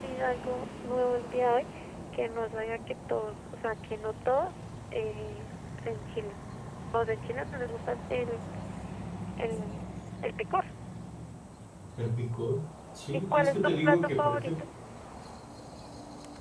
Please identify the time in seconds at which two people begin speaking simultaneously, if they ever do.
13.1 s

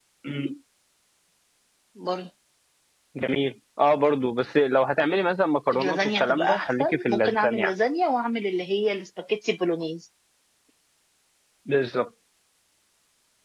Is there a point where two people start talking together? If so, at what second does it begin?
5.7 s

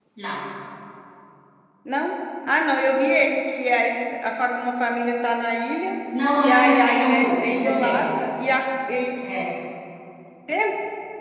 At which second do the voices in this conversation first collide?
6.4 s

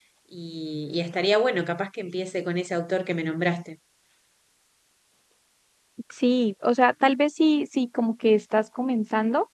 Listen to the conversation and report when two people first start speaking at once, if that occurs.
none

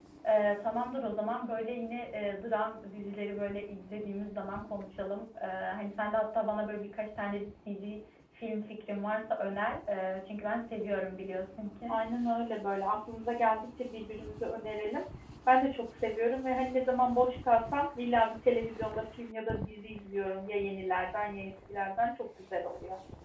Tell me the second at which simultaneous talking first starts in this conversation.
none

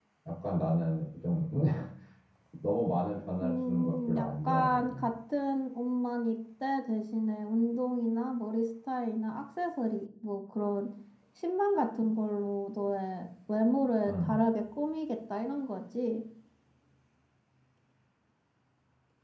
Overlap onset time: 3.4 s

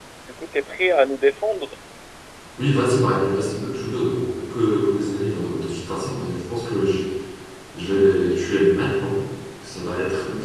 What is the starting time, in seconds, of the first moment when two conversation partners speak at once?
none

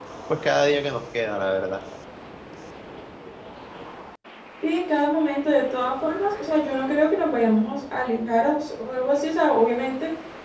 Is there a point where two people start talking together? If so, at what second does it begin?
none

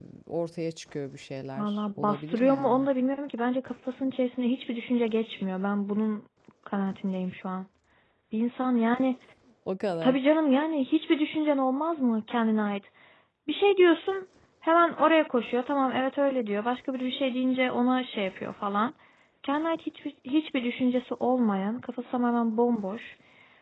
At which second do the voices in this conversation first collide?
1.6 s

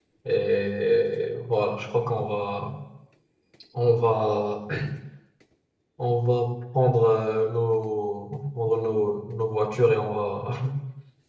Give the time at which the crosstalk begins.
none

